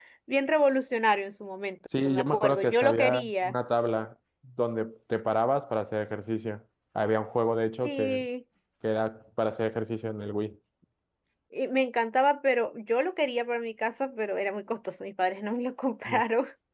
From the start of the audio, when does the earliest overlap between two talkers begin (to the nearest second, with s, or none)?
2 s